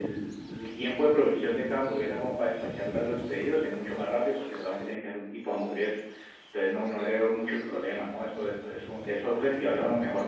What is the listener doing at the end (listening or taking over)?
taking over